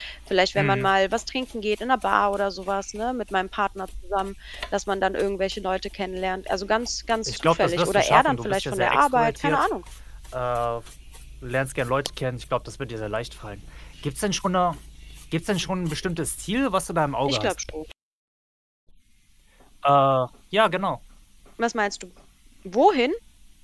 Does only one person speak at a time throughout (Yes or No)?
No